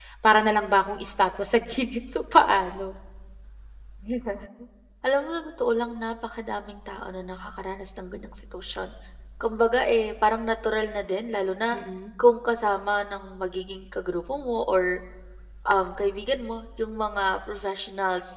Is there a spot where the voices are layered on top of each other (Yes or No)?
No